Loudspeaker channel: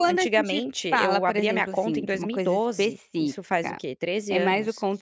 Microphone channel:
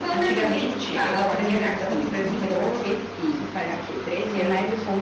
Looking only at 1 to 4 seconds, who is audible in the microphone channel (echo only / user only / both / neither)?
echo only